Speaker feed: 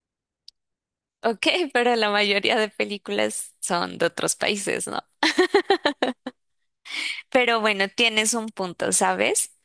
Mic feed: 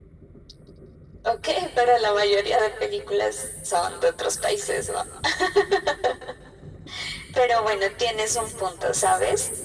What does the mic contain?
echo only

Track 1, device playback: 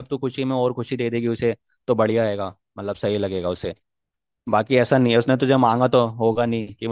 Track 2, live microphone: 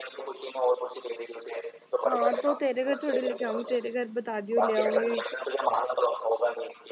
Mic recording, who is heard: both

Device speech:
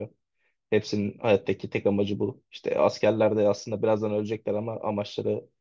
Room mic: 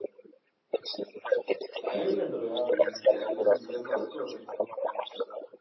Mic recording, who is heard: both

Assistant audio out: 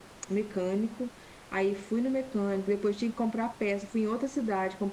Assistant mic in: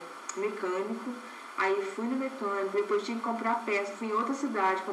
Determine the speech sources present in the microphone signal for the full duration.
echo only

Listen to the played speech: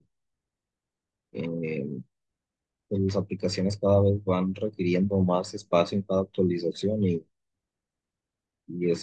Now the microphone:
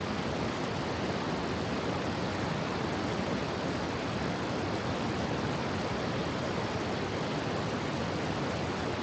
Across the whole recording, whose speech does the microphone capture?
neither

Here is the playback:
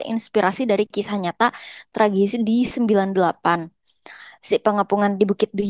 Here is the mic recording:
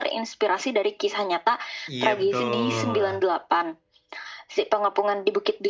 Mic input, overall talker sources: both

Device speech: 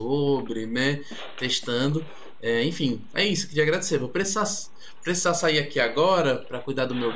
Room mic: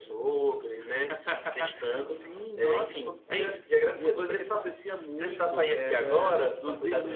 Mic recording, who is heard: both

